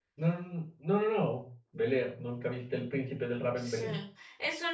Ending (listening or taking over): taking over